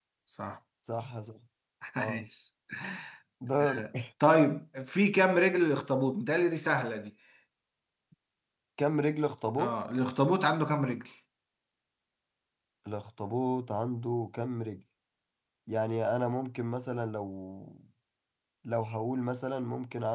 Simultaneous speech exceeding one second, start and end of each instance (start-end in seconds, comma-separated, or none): none